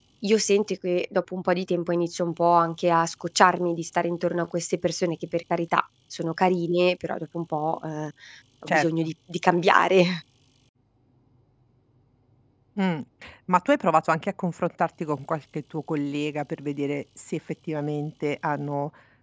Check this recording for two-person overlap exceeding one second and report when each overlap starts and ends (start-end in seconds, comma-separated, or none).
none